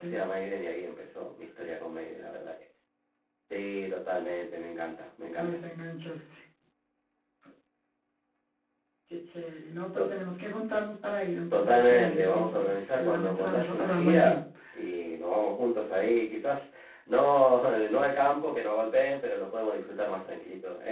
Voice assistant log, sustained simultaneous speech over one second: present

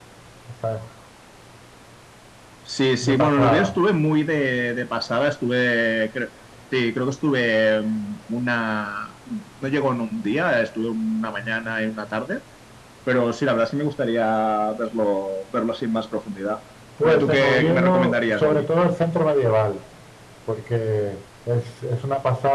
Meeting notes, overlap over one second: present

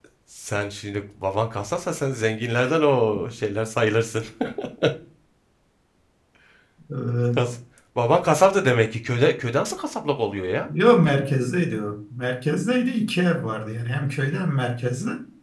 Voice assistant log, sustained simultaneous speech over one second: none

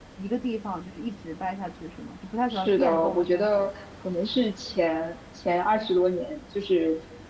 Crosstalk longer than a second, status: present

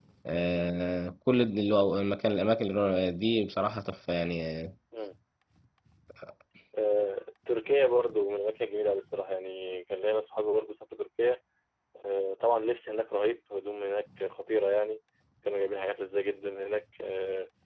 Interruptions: none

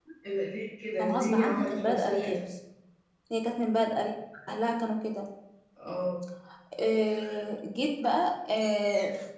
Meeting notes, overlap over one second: present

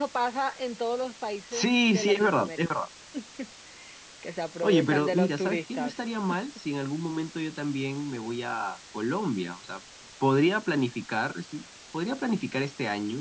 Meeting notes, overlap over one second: present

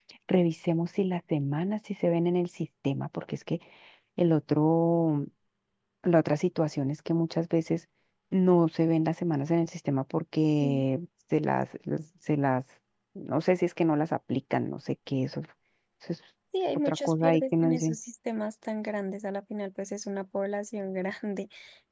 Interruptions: present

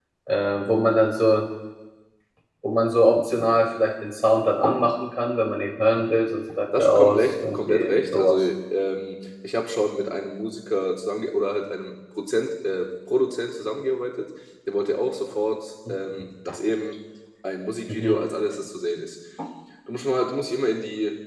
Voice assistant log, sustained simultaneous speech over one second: present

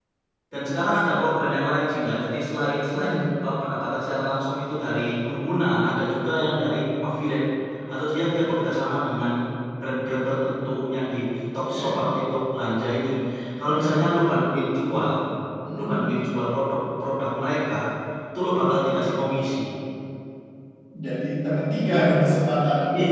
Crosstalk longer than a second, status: none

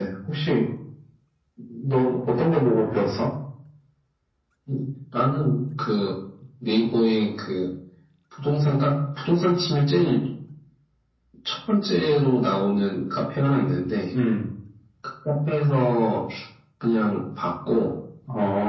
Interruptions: none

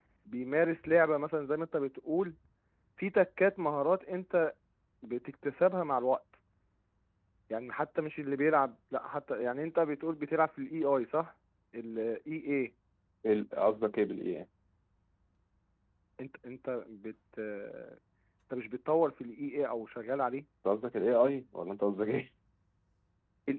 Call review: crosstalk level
none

